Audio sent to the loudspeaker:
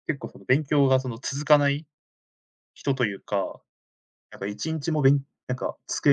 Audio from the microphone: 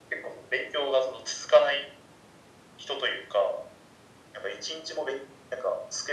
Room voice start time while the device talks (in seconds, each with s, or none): none